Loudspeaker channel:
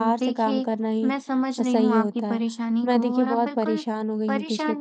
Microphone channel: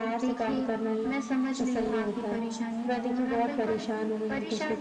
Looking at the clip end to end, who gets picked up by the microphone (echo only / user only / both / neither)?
echo only